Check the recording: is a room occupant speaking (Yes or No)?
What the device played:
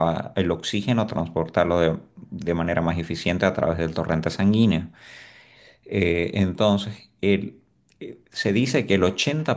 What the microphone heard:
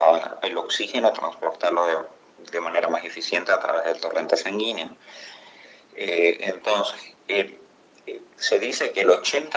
No